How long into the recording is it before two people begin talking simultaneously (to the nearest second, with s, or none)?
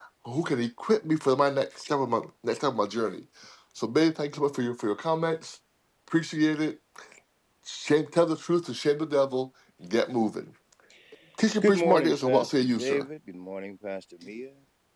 12 s